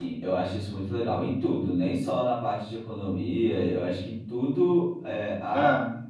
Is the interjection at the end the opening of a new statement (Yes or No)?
No